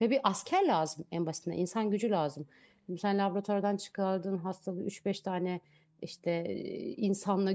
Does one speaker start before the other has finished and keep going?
No

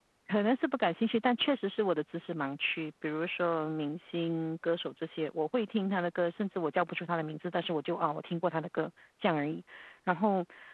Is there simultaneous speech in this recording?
No

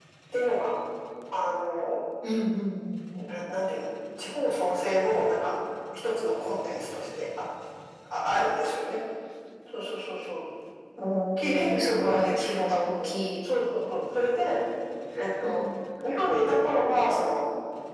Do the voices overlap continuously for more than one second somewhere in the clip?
Yes, from 11.4 s

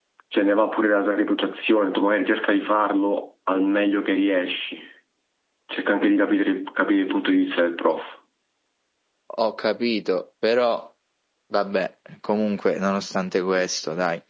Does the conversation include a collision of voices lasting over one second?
No

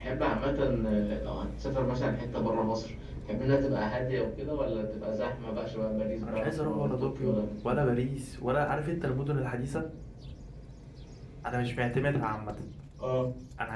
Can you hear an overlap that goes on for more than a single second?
Yes, from 6.2 s

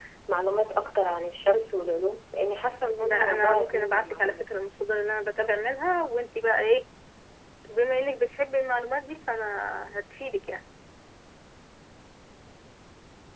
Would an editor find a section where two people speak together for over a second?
Yes, from 3.0 s

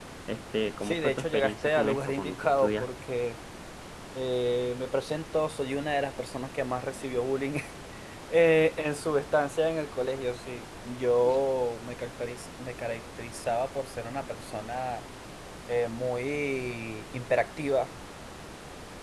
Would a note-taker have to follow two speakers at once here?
Yes, from 0.8 s

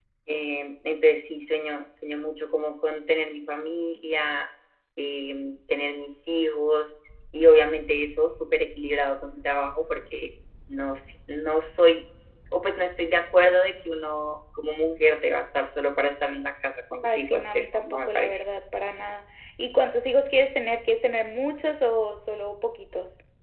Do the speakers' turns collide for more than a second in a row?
Yes, from 17.0 s

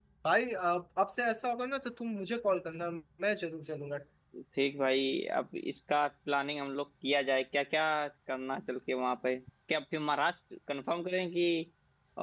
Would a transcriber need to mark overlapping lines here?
No

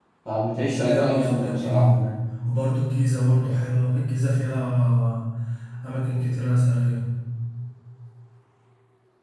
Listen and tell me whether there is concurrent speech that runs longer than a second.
Yes, from 0.8 s

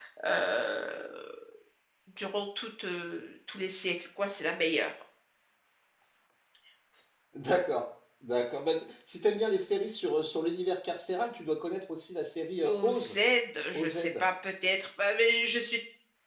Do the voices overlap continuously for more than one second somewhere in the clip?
No

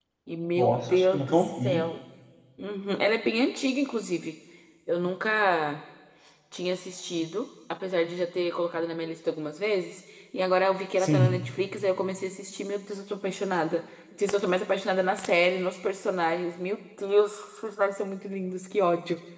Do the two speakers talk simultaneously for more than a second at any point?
Yes, from 0.6 s

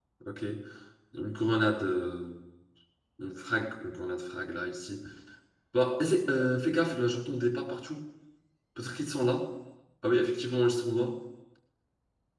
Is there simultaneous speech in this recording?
No

